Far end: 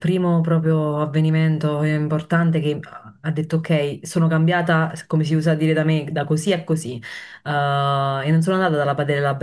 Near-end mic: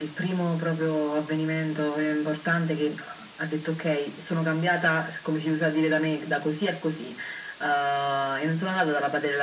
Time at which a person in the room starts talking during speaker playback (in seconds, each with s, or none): none